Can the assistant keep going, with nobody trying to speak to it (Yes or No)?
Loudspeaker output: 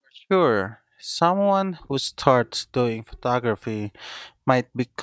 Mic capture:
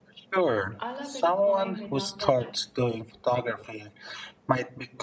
No